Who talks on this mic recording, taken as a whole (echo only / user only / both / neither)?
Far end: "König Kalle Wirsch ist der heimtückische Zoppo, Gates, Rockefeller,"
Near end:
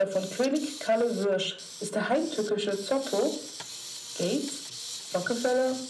echo only